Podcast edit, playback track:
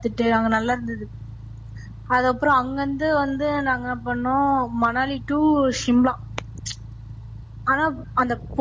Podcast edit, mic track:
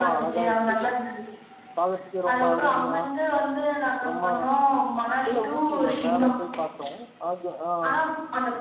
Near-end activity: present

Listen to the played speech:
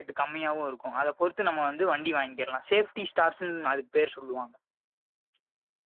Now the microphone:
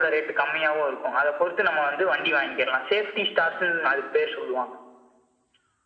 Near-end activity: none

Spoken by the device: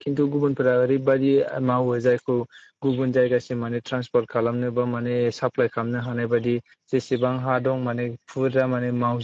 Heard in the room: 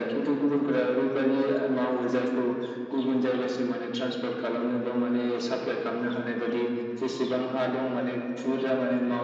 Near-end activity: none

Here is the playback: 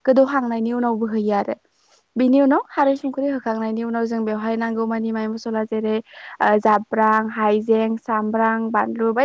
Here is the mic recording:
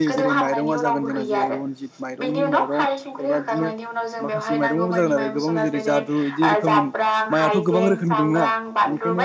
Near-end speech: present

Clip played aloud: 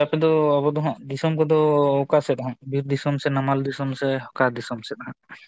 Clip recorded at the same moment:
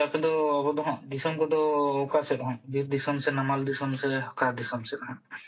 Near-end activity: none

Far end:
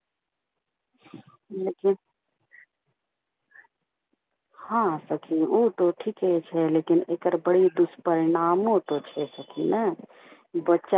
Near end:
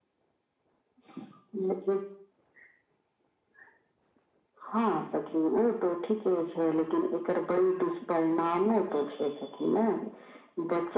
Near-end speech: none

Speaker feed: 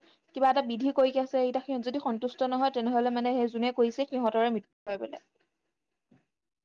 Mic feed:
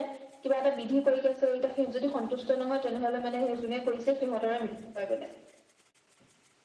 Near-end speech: none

